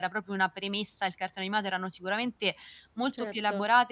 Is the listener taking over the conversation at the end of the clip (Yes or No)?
No